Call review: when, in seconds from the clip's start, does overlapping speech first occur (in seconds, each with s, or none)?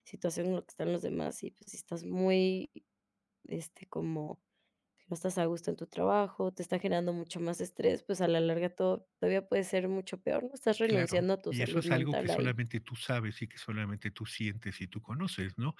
10.8 s